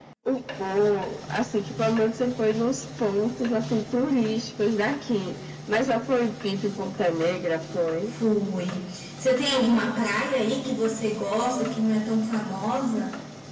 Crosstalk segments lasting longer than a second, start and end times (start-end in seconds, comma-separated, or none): none